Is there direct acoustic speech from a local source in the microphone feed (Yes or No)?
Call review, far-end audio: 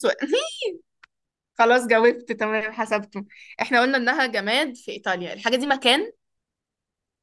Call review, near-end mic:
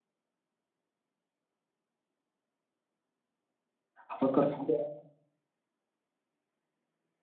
Yes